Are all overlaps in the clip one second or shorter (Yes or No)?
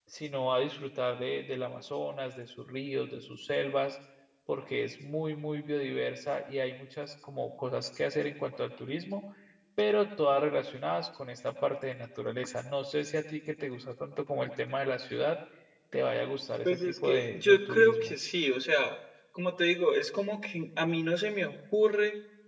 No